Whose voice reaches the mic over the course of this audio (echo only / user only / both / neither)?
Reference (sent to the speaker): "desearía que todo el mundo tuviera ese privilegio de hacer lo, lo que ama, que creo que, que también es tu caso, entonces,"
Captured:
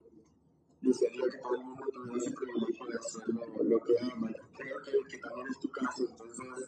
echo only